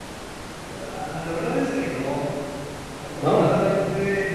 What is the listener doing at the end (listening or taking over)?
listening